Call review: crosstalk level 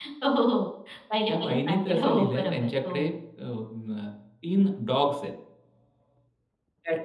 present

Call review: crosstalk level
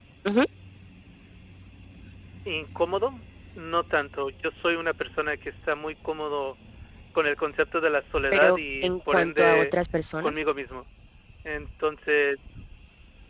present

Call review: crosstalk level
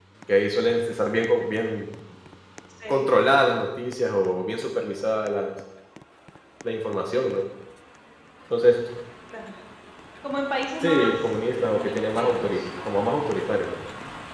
present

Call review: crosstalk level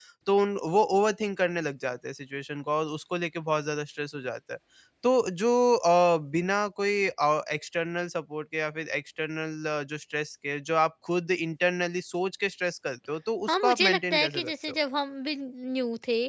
present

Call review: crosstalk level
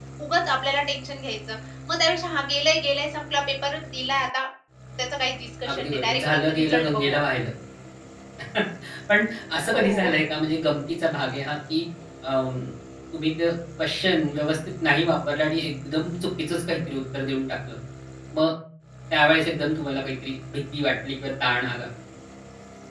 present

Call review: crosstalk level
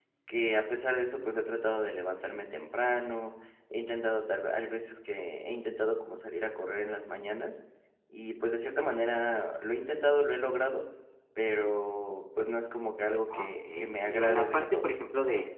present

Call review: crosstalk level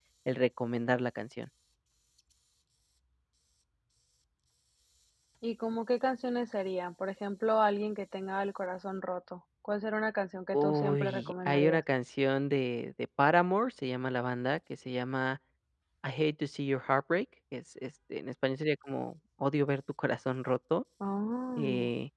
present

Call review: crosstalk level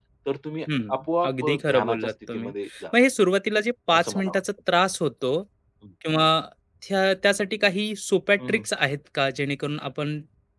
present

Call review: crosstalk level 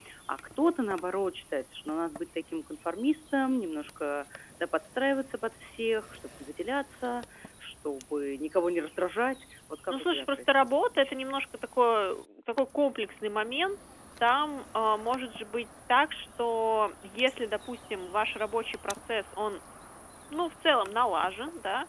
present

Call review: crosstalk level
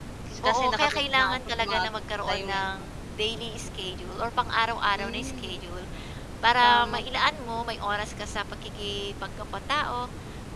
present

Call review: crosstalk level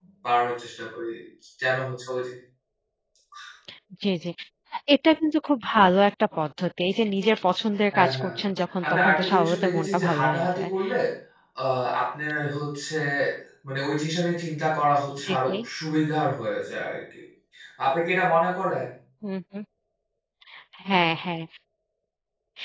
present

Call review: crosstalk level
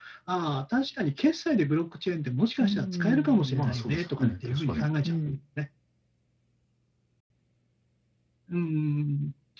present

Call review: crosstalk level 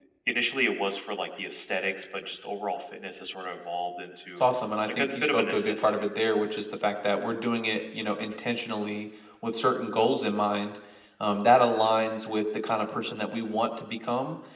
present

